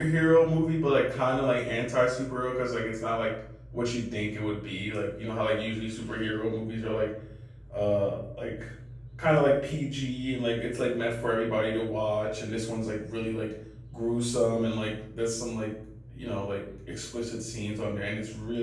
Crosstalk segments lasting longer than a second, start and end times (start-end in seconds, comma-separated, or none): none